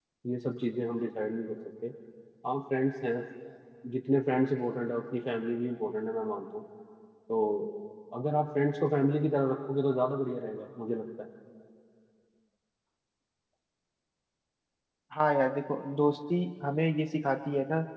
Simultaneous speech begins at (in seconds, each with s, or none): none